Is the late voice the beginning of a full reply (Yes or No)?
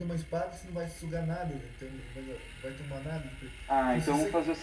Yes